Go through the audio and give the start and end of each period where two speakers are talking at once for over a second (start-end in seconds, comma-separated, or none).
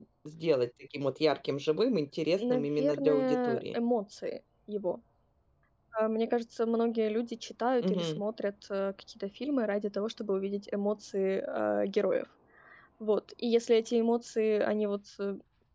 2.4-3.8